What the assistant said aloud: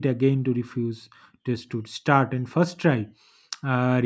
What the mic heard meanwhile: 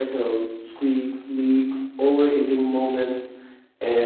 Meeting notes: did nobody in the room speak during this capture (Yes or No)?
No